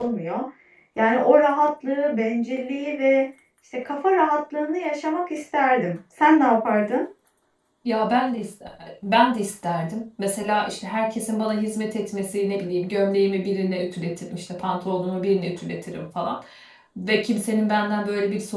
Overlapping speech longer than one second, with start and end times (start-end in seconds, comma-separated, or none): none